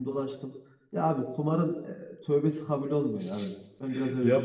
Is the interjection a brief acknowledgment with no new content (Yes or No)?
No